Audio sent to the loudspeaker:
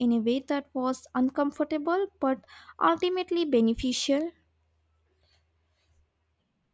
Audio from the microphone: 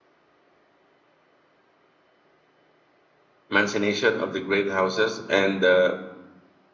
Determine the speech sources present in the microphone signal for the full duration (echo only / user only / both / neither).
user only